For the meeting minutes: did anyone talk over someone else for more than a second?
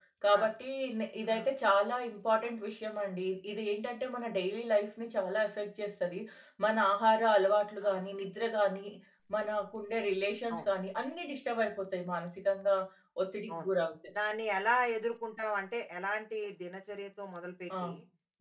No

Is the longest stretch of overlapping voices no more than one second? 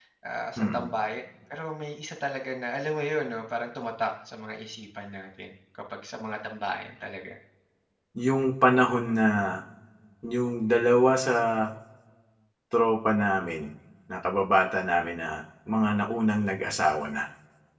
Yes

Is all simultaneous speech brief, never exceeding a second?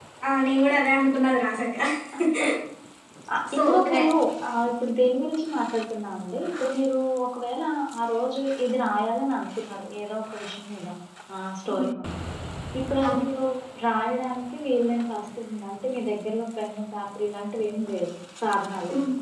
Yes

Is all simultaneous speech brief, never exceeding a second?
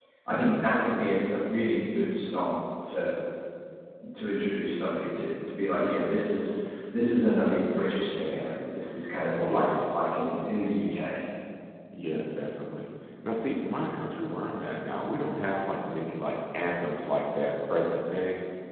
Yes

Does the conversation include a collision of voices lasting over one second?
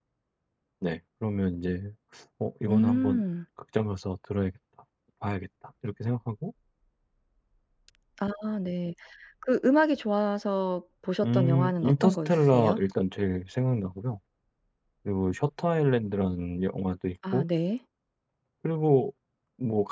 Yes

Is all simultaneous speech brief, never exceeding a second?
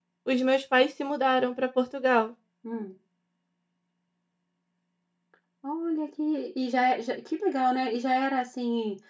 Yes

